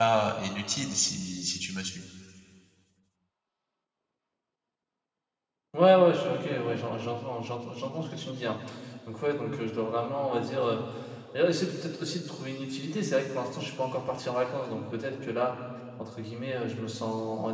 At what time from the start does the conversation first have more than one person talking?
none

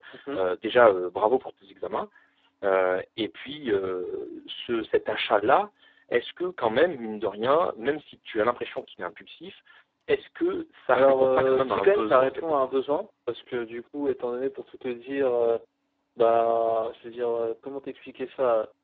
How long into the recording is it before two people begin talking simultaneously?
10.9 s

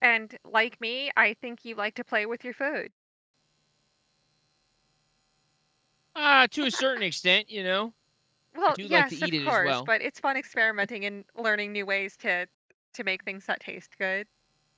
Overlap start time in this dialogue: 8.7 s

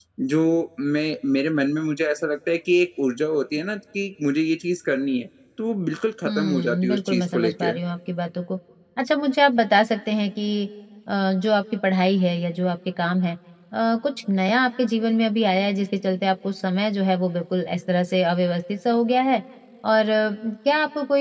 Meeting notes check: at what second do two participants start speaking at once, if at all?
6.2 s

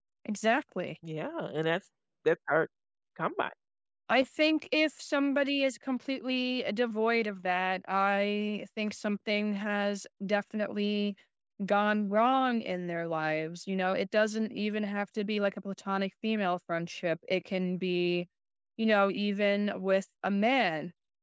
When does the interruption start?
none

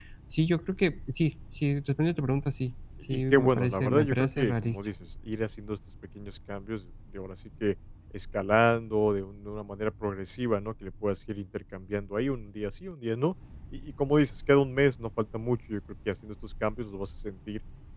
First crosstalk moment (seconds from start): 3.1 s

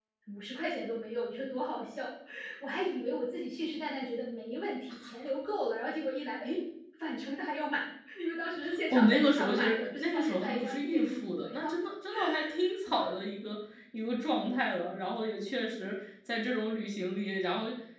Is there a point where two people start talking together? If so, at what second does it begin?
8.9 s

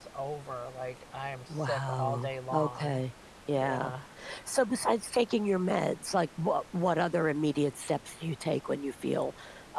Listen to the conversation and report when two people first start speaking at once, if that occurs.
1.6 s

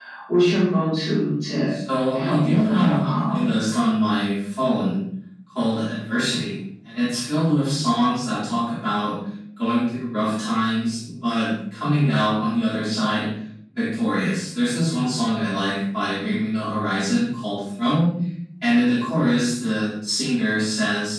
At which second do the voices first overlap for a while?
2.1 s

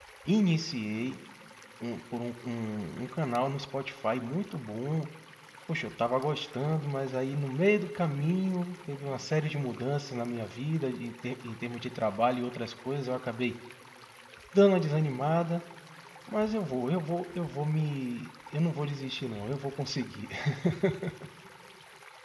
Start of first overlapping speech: none

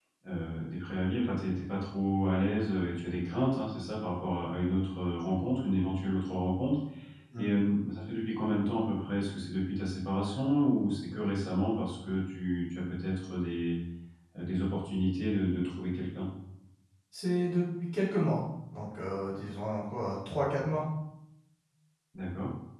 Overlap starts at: none

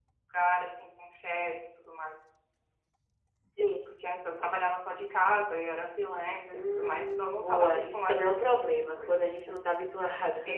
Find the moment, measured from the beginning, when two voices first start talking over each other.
6.5 s

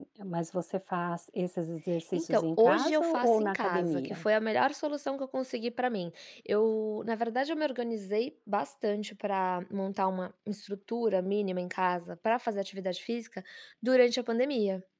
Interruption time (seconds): 2.1 s

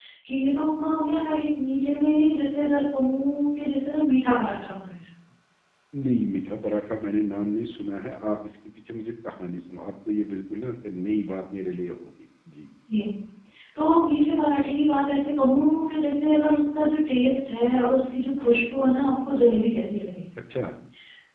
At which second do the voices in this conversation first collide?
none

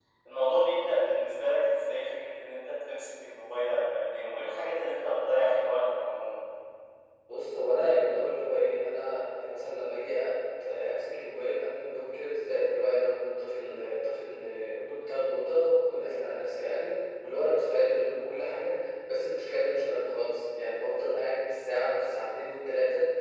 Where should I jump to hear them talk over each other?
none

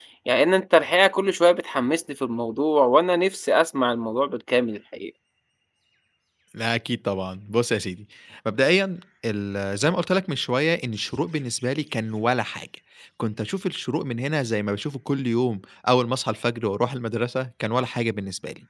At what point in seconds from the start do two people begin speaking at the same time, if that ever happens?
none

